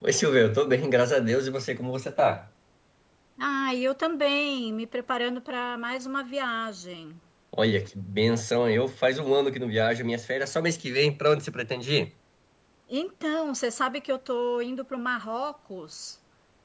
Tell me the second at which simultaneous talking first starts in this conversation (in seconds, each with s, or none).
none